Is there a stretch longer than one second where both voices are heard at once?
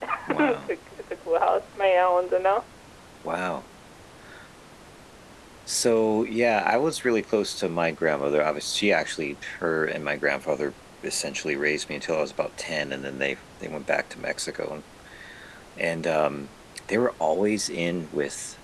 No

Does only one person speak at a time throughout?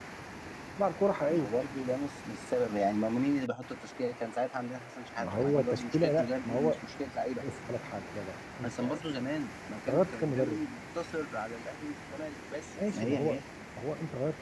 No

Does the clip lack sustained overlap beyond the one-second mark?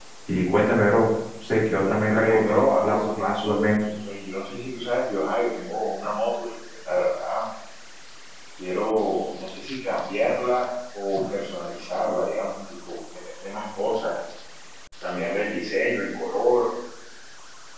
No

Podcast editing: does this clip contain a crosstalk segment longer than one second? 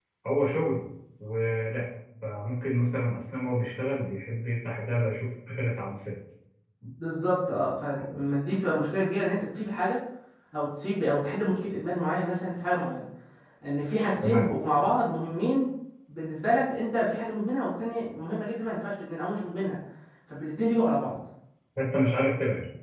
No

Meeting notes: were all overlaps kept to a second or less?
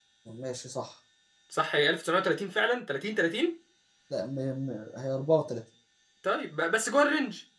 Yes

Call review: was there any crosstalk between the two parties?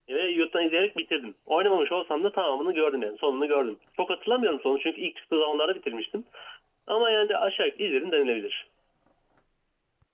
No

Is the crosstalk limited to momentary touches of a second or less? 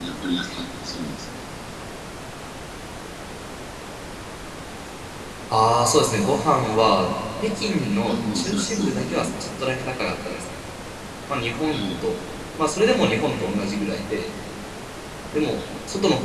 No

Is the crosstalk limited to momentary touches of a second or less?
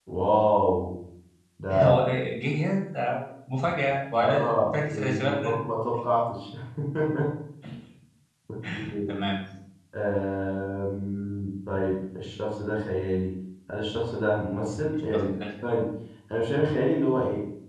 No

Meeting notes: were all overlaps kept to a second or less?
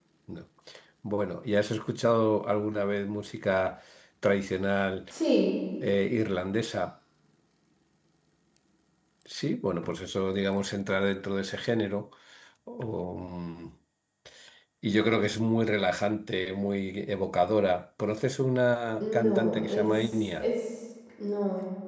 No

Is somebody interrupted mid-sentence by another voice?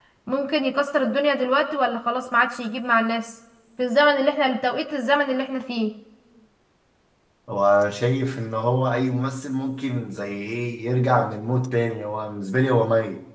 No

